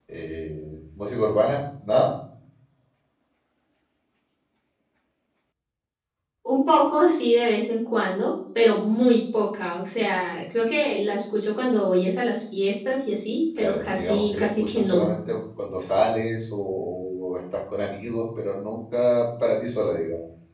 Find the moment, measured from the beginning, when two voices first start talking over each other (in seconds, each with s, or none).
13.6 s